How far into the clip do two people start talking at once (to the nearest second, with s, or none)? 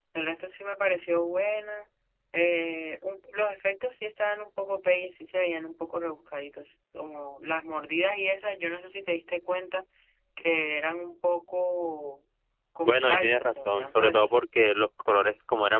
13 s